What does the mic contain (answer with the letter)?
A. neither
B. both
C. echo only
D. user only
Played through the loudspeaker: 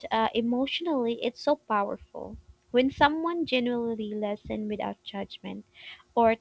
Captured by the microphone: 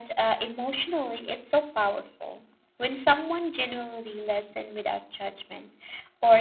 C